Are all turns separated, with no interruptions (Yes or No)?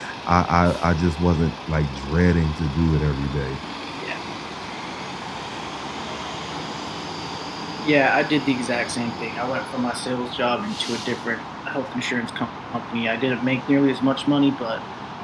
Yes